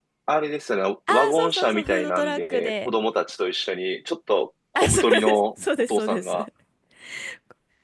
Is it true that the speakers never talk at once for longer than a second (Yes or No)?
No